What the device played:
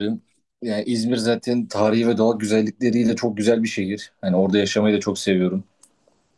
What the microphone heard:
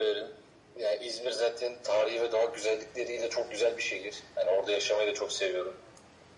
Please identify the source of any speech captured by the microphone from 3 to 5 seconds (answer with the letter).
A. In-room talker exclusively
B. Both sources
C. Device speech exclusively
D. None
C